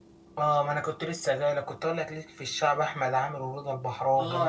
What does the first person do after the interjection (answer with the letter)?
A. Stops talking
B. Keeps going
A